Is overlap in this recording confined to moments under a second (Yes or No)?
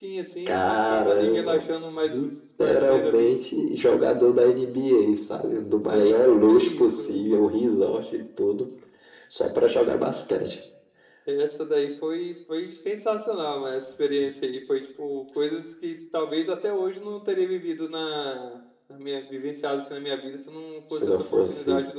No